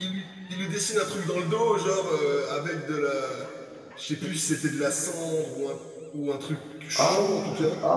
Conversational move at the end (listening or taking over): taking over